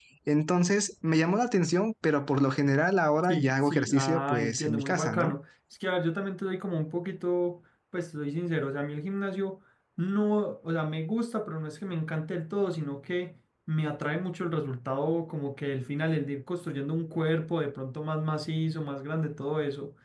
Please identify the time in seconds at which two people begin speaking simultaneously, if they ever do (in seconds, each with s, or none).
3.2 s